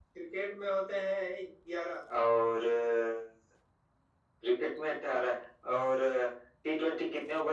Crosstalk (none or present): none